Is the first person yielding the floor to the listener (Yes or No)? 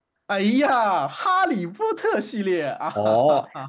Yes